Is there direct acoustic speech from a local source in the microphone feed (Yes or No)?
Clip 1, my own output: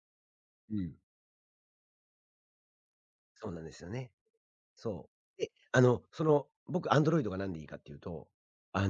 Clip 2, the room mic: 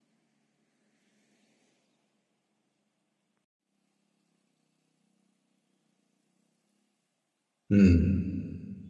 Yes